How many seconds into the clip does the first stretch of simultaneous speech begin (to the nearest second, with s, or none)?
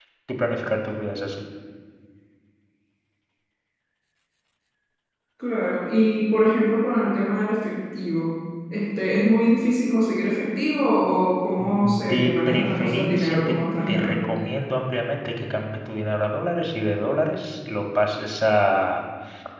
12 s